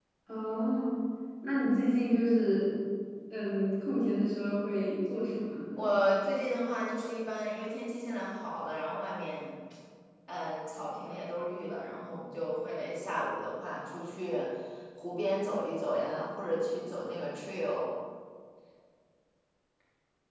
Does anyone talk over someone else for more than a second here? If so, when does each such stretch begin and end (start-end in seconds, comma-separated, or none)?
none